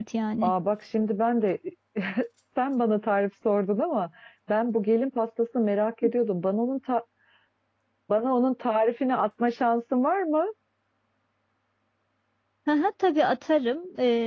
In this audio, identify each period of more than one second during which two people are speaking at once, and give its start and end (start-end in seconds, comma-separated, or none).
none